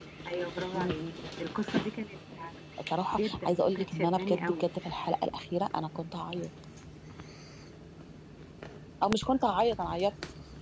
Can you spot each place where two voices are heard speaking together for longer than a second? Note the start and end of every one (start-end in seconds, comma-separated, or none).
3.2-4.7